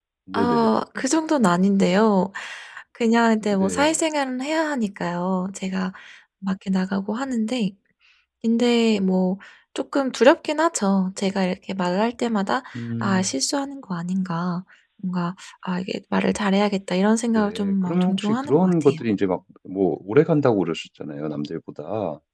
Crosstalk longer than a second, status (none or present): present